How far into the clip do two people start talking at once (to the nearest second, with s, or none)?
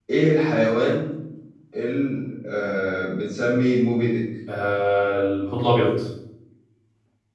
none